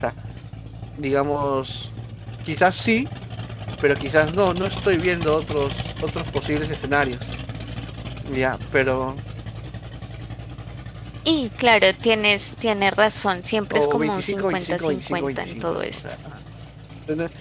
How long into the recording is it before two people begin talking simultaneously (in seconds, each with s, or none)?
13.7 s